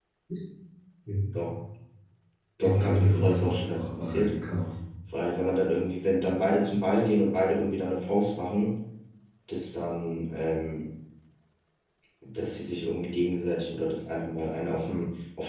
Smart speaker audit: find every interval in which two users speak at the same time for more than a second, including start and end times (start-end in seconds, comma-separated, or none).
2.6-4.3